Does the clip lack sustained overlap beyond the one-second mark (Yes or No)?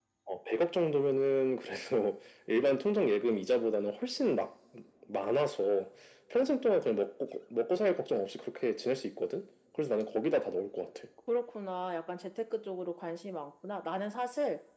Yes